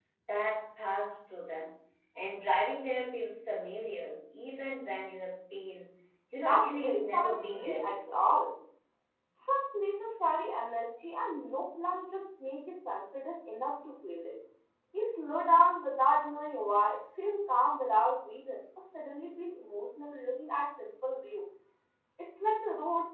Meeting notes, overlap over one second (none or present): present